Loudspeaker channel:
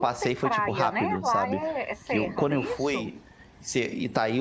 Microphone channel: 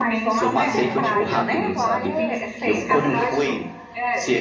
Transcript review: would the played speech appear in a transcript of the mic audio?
Yes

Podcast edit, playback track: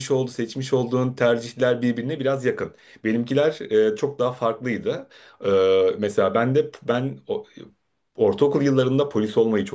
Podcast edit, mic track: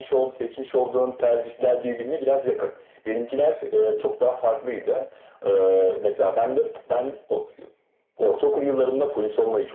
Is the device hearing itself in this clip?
Yes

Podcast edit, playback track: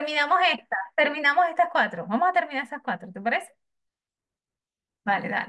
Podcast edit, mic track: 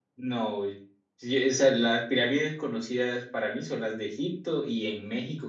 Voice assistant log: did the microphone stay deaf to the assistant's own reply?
Yes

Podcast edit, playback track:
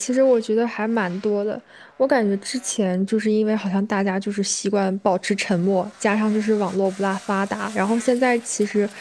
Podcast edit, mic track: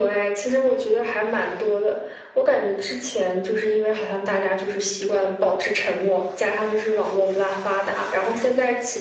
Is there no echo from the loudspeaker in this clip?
No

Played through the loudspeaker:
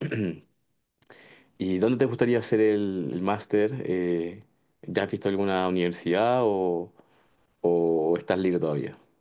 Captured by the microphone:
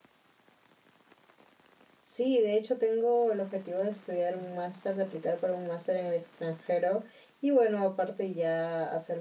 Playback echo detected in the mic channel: No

